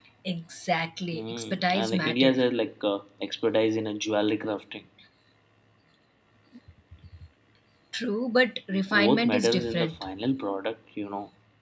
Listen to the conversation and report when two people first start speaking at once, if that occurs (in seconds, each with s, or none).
1.1 s